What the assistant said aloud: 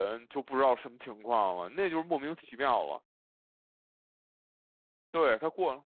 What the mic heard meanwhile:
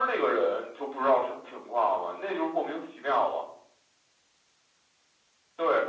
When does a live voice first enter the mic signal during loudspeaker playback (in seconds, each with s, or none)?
none